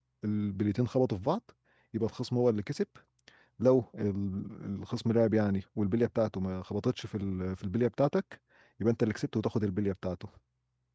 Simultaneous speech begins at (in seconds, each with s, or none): none